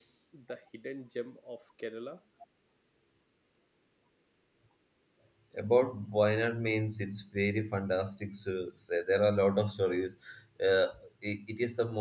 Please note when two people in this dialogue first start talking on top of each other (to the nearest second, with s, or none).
none